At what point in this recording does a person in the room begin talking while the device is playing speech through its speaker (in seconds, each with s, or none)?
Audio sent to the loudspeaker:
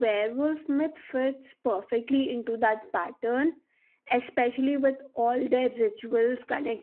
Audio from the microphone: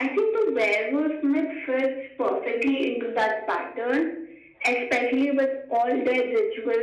none